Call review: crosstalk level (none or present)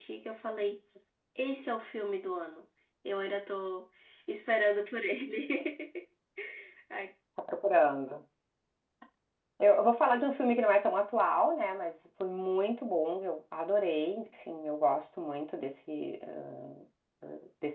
none